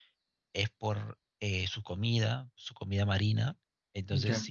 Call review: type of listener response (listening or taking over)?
listening